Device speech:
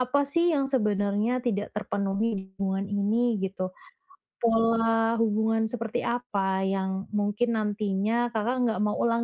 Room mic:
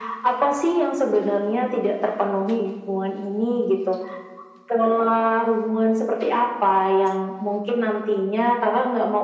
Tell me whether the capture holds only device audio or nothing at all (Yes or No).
Yes